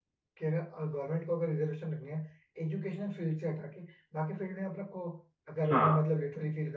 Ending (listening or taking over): listening